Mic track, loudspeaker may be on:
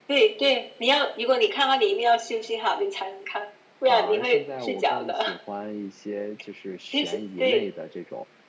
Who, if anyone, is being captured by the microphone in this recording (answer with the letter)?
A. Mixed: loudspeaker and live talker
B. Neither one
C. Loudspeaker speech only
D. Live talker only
A